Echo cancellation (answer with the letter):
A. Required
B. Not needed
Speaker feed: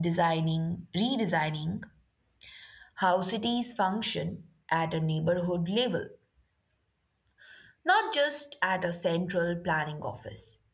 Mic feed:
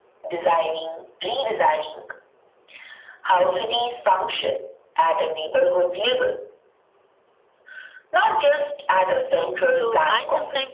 A